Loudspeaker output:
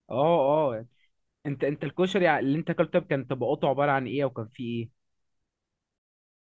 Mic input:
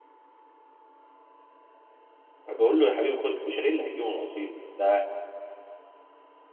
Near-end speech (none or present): present